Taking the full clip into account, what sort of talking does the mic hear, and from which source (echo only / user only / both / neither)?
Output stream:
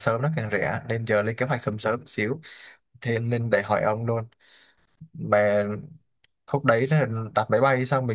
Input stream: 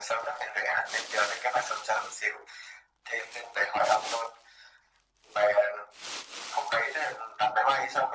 echo only